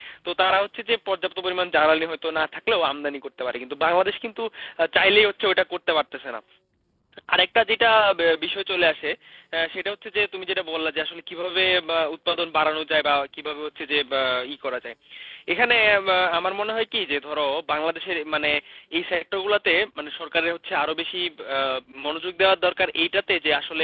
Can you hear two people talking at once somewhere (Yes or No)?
No